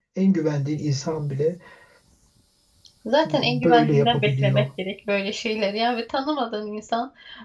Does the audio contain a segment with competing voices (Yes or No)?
Yes